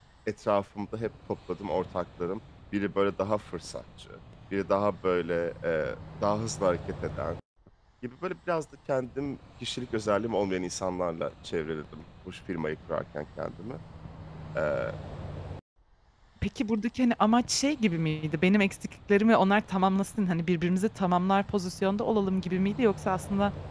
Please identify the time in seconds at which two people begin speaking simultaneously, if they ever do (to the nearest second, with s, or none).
none